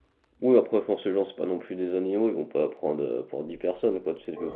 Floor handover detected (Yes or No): No